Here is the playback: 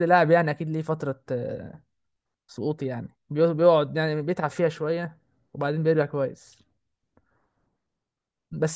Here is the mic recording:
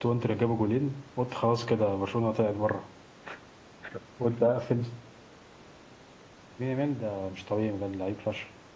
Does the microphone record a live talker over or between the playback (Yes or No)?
Yes